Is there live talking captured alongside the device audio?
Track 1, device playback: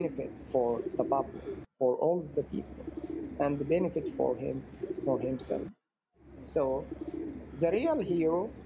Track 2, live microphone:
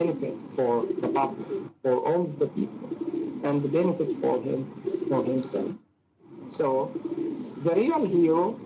No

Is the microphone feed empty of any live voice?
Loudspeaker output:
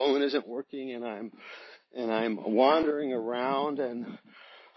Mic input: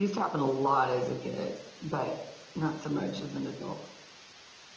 No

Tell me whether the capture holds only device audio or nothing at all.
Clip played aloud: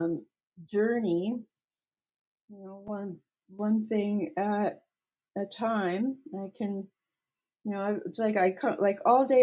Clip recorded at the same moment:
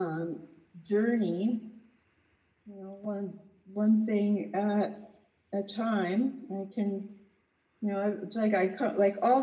Yes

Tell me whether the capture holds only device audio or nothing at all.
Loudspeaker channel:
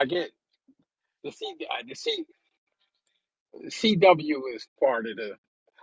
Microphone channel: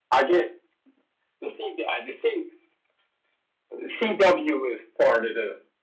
Yes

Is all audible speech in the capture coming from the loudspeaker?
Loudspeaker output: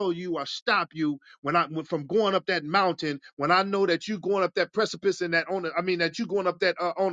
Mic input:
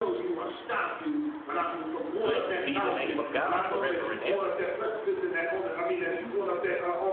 No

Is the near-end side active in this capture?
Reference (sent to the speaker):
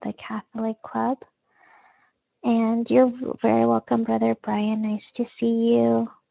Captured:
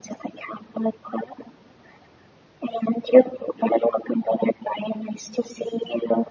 No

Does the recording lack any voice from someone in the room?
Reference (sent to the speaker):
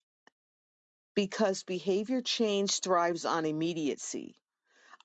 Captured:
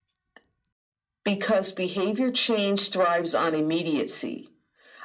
Yes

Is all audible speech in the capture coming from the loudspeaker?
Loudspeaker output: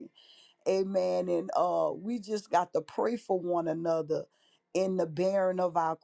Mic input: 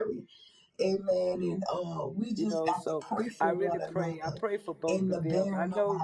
No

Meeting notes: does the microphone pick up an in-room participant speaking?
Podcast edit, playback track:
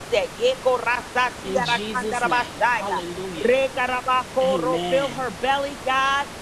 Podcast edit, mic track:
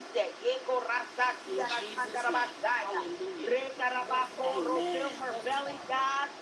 Yes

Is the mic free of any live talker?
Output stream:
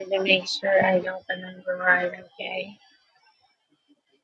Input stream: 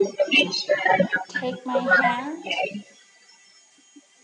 No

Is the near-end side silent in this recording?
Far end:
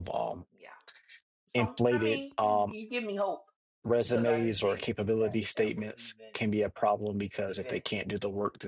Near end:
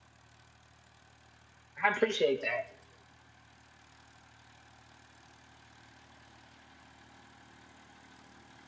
No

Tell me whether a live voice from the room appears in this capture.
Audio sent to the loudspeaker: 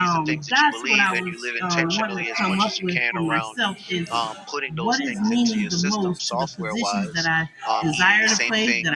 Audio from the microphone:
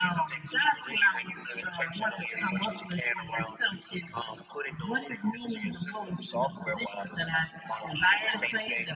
No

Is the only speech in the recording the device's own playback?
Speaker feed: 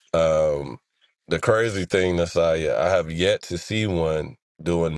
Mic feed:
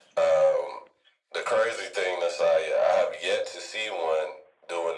Yes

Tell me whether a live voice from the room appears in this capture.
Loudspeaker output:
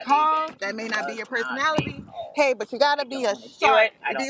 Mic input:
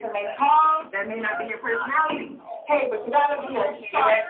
Yes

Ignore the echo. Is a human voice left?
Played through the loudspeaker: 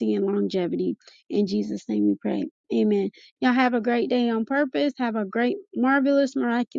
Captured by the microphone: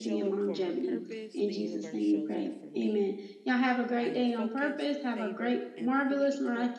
Yes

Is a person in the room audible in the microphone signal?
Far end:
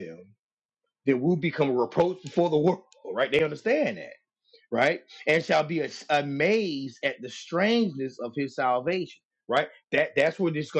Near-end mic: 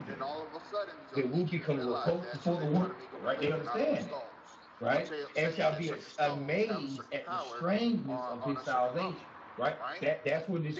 Yes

